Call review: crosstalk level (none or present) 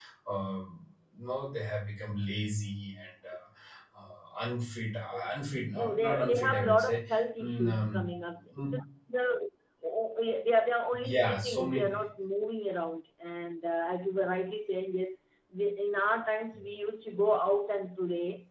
present